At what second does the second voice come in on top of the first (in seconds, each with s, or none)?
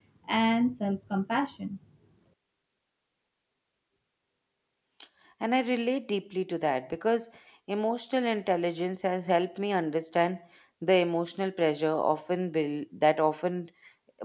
none